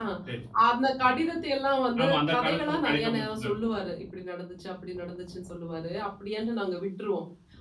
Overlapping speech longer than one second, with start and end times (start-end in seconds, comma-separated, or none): 2.0-3.5